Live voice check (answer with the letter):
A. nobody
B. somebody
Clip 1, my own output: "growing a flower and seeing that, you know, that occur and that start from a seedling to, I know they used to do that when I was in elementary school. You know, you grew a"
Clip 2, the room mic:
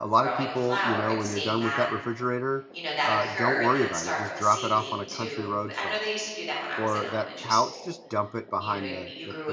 B